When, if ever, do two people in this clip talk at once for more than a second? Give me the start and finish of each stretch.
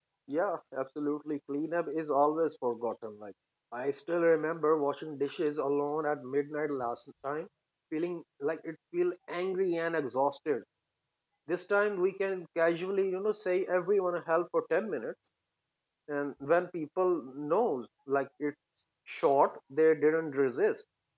none

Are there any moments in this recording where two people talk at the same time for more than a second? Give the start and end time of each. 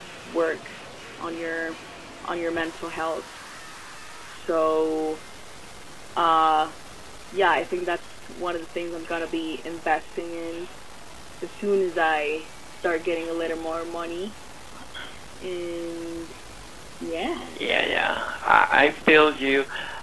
none

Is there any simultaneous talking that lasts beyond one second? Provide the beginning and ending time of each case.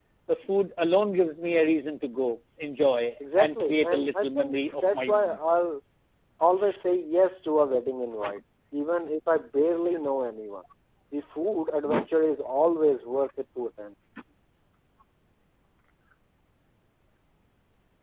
3.4-5.4

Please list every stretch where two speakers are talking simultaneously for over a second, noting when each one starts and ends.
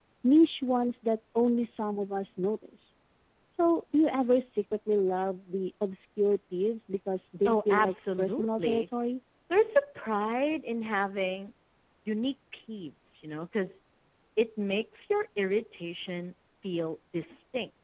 7.5-8.8

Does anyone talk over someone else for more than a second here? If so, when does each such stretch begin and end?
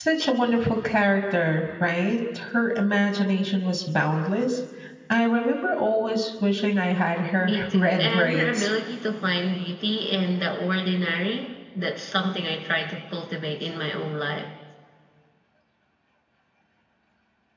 7.4-8.7

